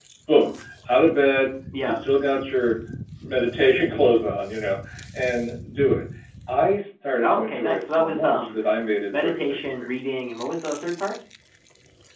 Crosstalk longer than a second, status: present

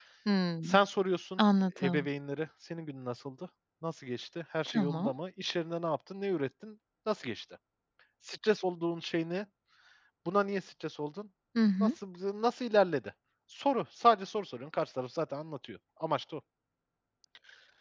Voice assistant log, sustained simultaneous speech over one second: none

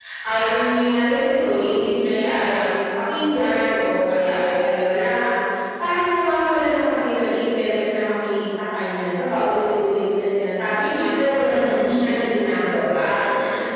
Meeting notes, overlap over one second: none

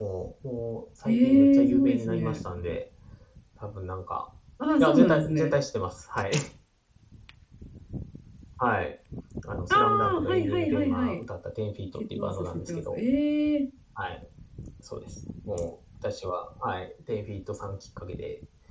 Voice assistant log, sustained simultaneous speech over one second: present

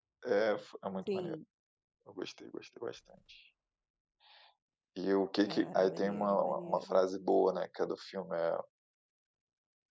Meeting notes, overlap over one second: present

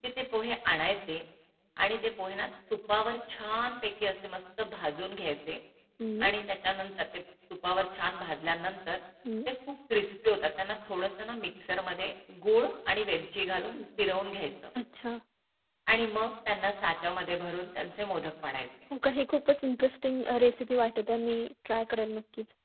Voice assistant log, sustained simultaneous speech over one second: none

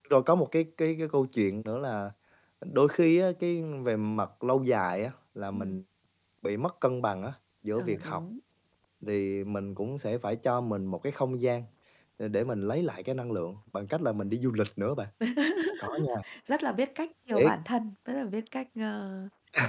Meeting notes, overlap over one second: none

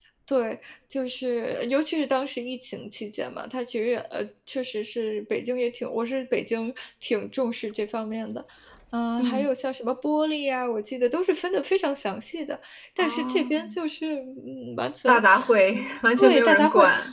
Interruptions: present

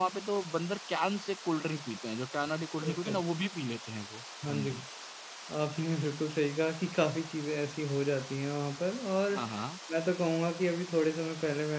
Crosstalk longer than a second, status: none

